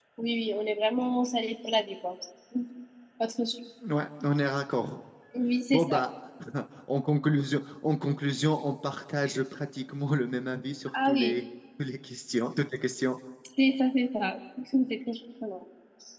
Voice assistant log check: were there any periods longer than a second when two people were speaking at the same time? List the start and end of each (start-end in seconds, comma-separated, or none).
none